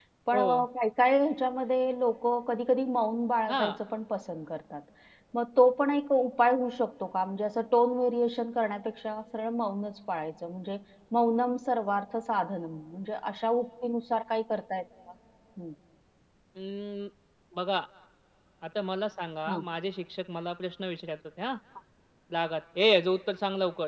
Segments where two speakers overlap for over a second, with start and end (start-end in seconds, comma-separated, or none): none